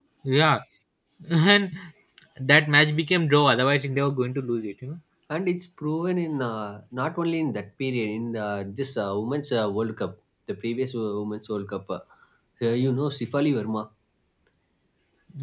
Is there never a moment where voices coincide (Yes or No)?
Yes